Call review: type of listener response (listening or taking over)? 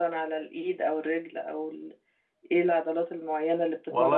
taking over